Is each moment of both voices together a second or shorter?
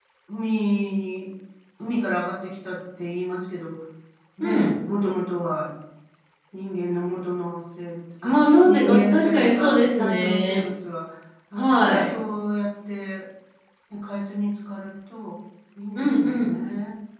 No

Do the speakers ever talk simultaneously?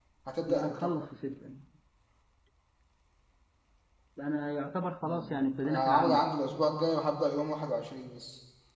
Yes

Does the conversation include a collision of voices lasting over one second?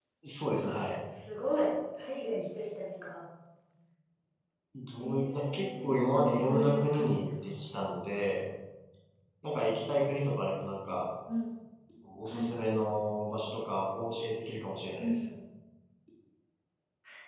Yes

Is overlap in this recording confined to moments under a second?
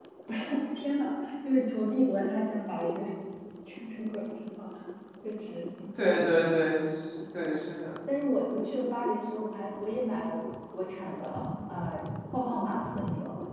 Yes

